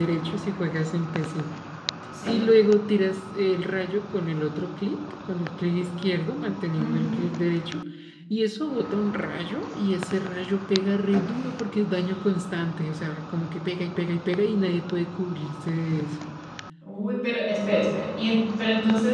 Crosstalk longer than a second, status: none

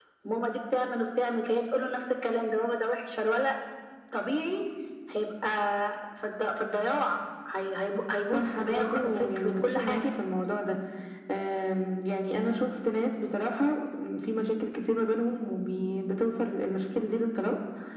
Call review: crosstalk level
present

